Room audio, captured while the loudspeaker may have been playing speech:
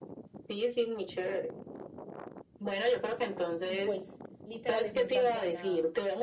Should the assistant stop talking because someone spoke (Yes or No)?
Yes